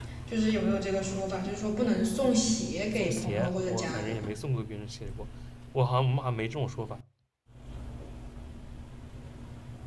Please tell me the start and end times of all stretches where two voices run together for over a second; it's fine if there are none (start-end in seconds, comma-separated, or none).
2.9-4.2